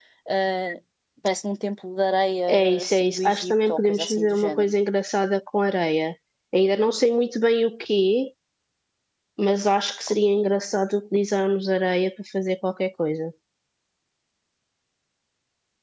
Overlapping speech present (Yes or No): Yes